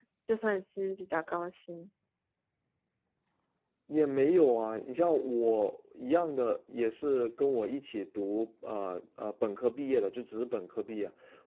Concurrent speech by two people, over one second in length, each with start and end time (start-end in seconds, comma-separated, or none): none